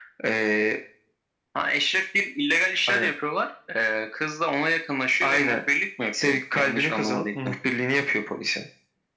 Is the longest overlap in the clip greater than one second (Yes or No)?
Yes